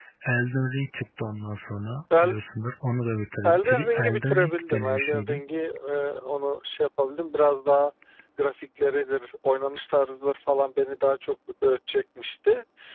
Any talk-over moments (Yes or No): Yes